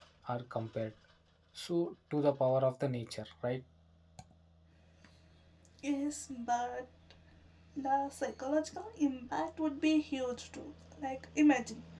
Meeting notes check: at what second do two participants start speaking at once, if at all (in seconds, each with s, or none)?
none